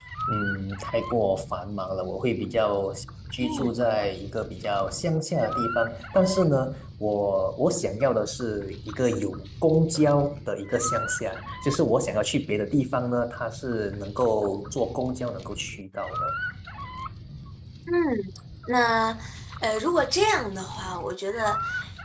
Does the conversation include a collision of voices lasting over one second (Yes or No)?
No